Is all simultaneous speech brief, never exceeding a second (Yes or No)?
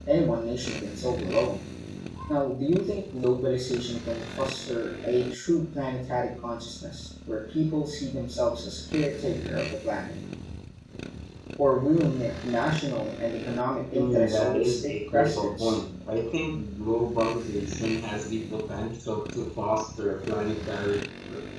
No